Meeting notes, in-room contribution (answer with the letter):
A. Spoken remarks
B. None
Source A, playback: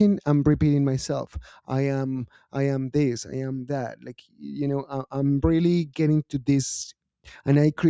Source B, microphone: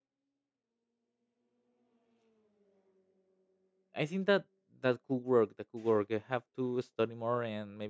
A